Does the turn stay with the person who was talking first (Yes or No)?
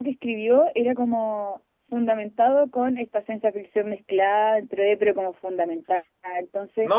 No